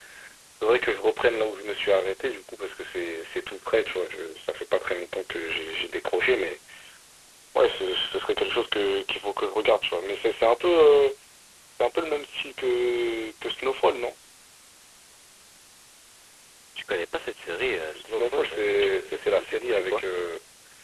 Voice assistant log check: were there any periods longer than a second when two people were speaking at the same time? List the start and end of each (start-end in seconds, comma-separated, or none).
18.0-20.0